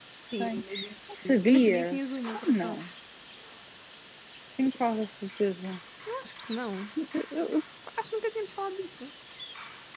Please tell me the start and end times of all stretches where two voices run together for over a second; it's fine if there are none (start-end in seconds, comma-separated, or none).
1.2-2.8